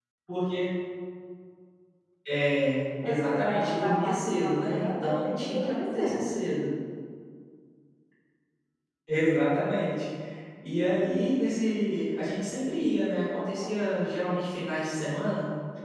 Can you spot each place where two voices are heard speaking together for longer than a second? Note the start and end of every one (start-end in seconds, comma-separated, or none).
3.0-6.3